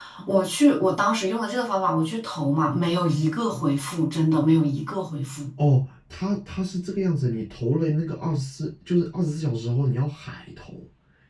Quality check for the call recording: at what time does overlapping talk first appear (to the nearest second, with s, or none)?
none